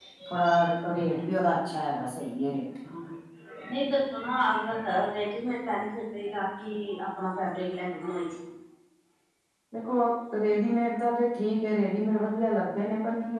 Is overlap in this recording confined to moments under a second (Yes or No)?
Yes